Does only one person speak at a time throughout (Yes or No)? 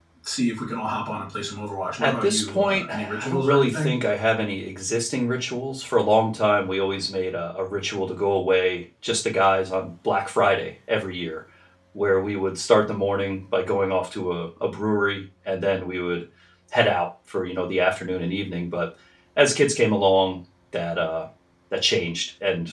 No